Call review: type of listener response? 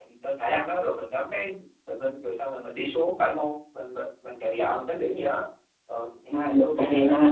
taking over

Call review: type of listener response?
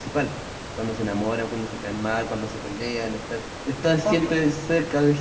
listening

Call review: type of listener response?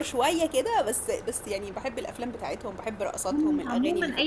taking over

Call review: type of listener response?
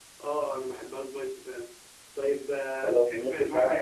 taking over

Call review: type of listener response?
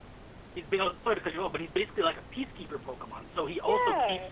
listening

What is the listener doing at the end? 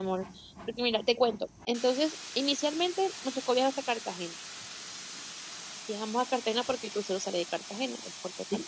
taking over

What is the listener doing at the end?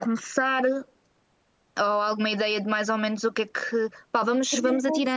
listening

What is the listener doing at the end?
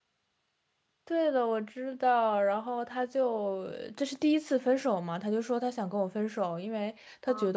listening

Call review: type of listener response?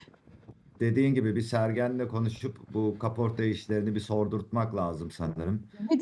taking over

